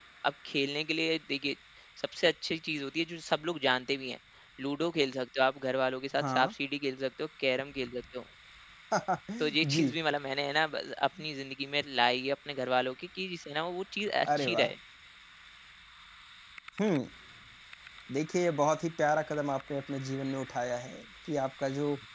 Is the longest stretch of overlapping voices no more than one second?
Yes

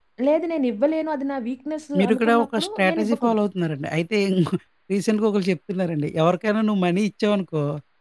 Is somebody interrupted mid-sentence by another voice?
Yes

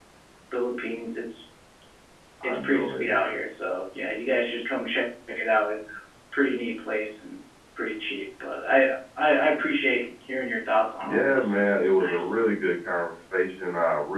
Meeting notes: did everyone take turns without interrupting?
No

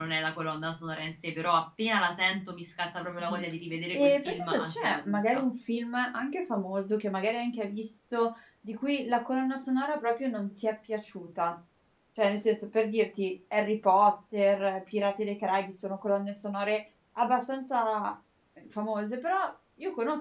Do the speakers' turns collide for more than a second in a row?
Yes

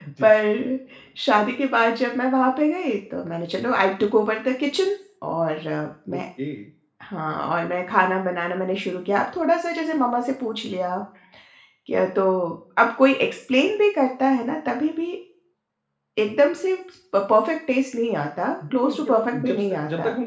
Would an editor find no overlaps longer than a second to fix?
No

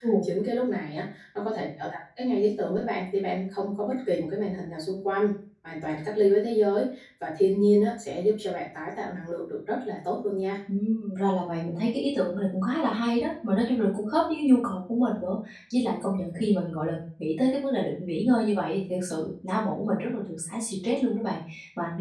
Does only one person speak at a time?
Yes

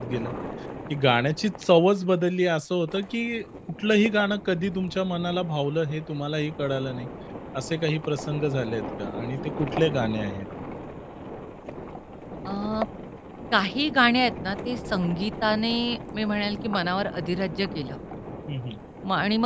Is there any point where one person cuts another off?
No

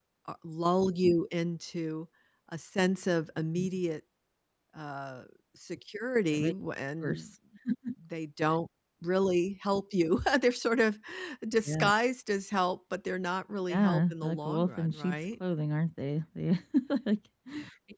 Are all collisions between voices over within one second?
No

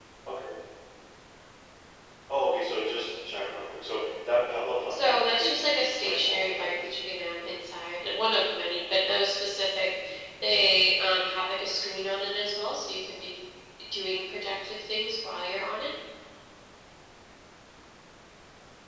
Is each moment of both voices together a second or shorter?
No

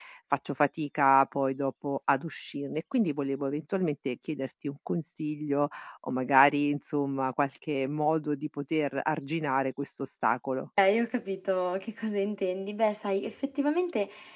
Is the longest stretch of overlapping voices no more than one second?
Yes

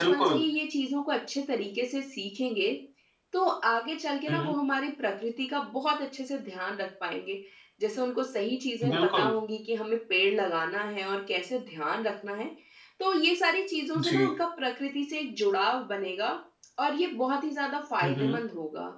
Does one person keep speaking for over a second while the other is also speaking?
No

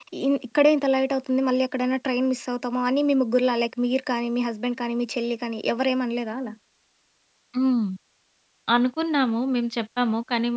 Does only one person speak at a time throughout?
Yes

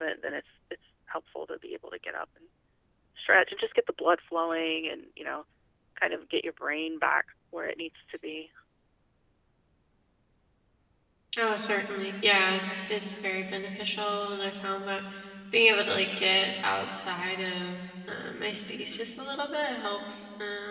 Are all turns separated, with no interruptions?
Yes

